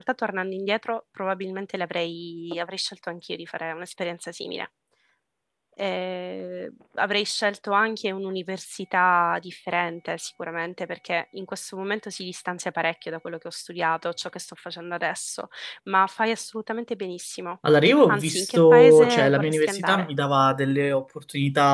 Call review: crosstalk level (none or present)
present